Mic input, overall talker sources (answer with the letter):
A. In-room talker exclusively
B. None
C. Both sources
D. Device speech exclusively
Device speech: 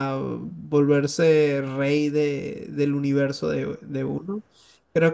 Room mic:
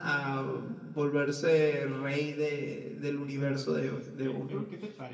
C